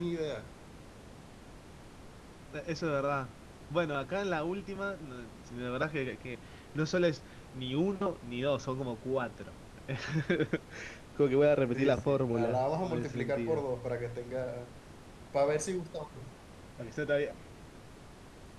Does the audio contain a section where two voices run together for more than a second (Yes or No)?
Yes